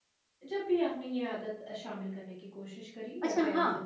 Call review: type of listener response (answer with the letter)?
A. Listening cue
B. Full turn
B